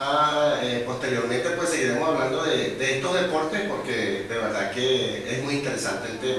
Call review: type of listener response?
taking over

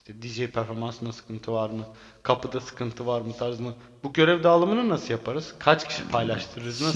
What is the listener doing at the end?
taking over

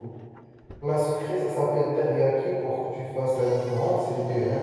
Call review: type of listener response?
listening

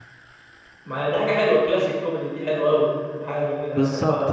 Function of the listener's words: taking over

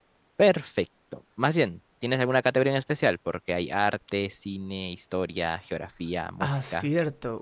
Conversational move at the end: taking over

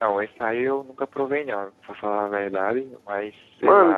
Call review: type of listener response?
taking over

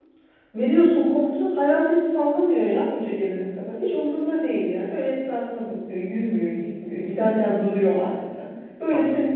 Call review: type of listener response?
listening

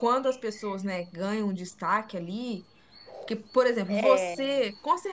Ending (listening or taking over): listening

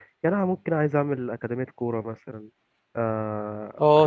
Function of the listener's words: taking over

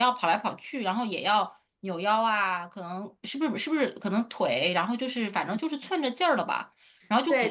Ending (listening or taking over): taking over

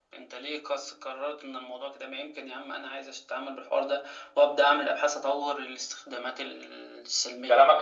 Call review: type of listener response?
taking over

